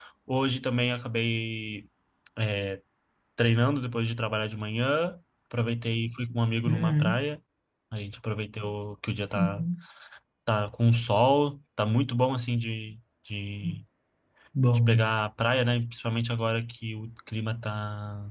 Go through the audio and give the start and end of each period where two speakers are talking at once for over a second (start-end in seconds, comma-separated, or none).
none